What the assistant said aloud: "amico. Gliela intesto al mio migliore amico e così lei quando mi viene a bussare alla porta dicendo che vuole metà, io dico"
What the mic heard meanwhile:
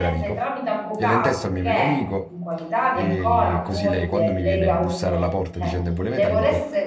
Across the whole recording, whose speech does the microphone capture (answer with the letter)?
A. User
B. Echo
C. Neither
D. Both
D